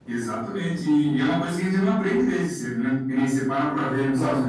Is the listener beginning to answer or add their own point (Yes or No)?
No